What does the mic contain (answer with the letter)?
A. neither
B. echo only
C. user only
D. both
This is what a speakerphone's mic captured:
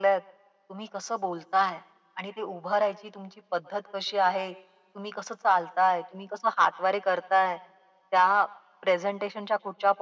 B